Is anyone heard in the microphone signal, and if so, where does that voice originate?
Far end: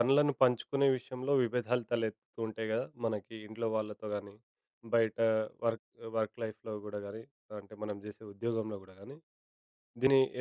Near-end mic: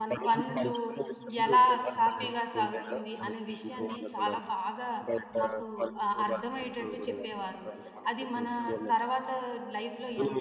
both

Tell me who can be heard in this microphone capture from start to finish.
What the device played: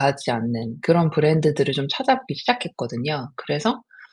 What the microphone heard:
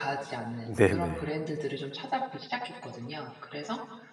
both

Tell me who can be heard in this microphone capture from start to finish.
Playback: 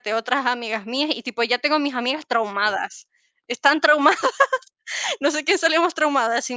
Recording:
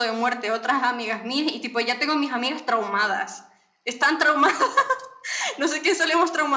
echo only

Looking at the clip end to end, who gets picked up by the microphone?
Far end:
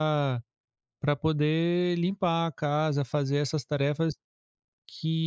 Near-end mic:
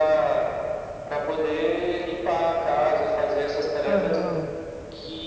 both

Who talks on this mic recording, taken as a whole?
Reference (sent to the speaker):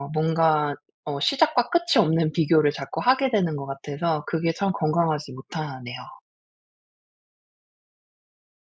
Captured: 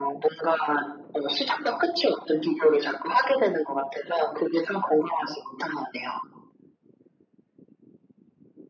echo only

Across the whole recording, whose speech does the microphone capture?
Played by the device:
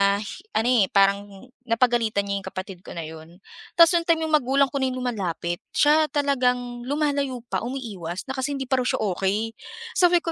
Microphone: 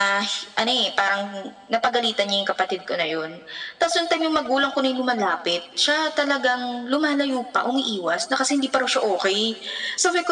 echo only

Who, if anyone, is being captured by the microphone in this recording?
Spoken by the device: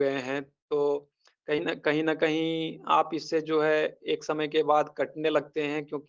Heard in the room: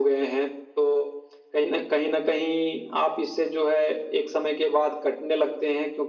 echo only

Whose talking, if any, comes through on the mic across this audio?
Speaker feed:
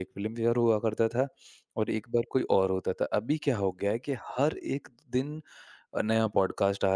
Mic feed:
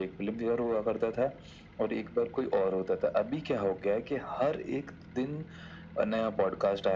echo only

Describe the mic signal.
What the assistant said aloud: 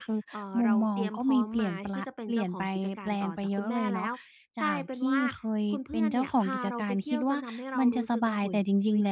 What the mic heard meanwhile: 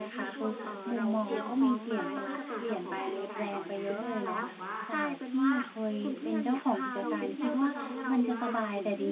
both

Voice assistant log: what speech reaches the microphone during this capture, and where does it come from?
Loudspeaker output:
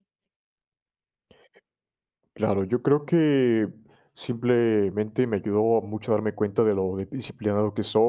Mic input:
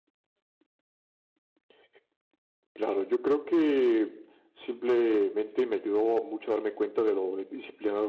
echo only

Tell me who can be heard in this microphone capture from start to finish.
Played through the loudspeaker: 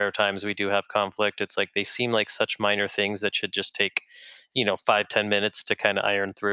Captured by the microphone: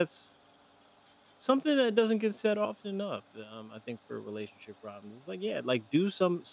user only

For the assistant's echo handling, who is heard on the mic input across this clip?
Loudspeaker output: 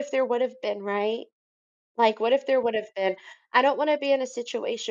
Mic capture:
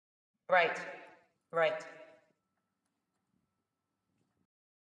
user only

